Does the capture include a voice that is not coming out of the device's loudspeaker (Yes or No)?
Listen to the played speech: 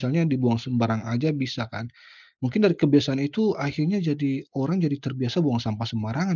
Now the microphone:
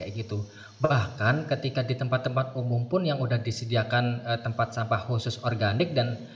Yes